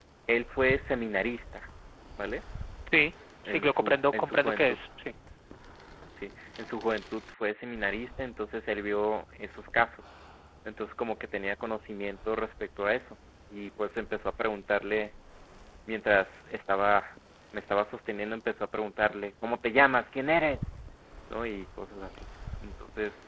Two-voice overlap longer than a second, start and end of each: 3.5-4.8

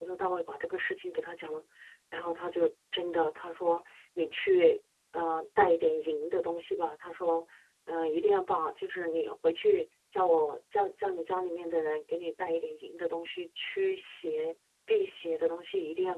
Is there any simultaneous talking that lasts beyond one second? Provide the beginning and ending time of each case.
none

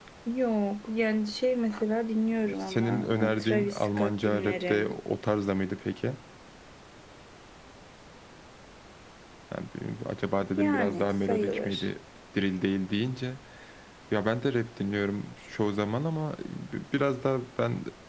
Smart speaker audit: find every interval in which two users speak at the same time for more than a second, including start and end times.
2.6-5.0, 10.6-11.8

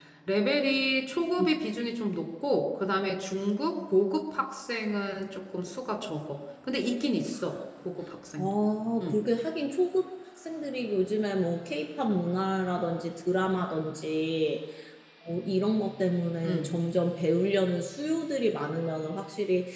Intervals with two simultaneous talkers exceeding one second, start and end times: none

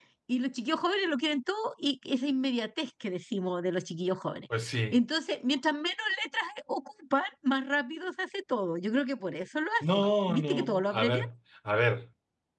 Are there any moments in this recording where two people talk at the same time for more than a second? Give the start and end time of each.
9.9-11.2

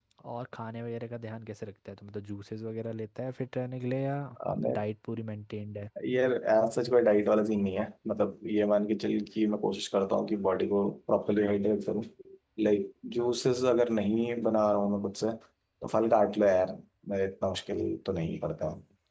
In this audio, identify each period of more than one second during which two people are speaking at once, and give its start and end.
none

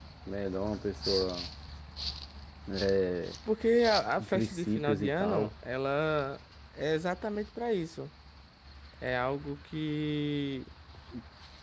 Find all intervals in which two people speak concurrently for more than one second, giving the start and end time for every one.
4.2-5.5

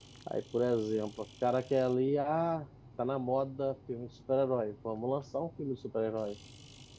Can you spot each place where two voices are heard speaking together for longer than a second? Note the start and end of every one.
none

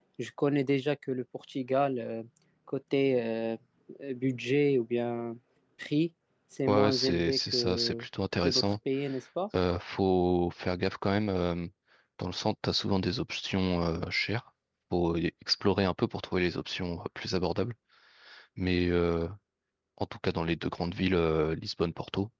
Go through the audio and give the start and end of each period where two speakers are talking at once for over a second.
6.7-8.0

